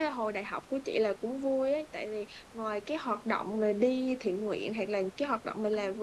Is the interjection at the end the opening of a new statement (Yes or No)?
No